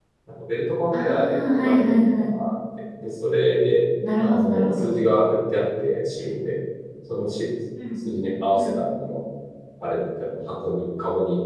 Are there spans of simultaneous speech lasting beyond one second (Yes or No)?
Yes